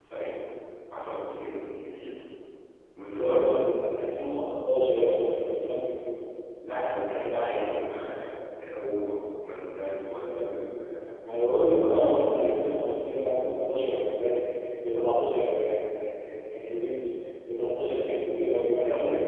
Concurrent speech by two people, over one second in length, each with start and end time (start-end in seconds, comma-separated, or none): none